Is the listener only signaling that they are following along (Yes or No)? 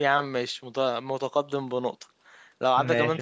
Yes